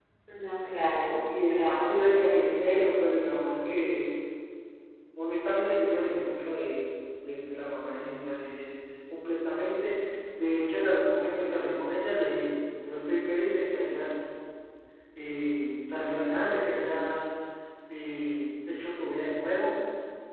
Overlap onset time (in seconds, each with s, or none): 1.3 s